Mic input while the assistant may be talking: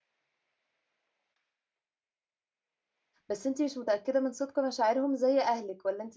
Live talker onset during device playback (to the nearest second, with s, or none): 3 s